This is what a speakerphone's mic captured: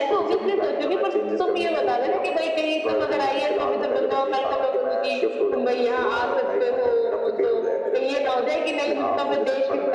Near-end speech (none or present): none